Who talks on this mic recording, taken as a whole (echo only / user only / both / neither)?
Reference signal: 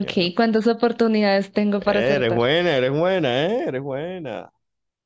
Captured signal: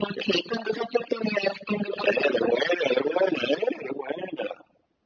echo only